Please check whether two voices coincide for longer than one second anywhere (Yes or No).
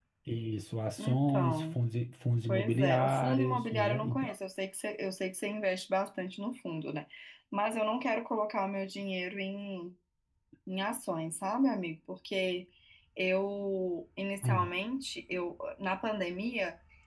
Yes